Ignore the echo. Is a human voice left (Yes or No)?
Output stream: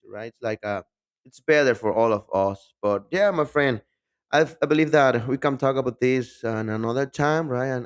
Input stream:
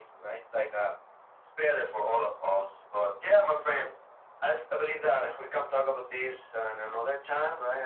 No